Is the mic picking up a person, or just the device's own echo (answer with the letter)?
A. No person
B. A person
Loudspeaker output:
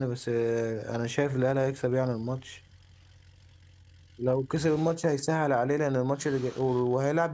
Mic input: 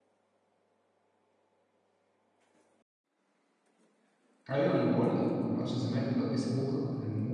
B